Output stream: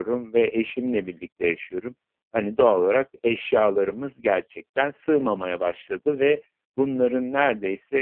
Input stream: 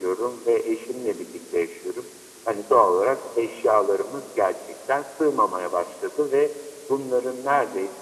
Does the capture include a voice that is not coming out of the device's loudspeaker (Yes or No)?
No